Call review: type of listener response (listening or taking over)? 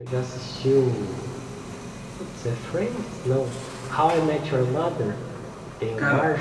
taking over